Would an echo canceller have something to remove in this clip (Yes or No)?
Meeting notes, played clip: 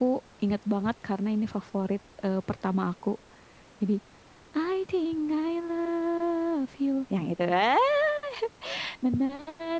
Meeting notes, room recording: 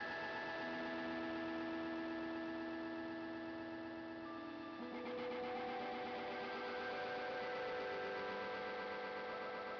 No